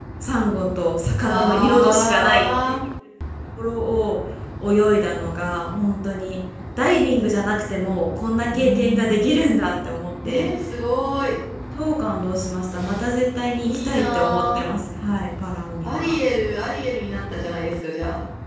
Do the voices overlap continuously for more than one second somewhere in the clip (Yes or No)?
Yes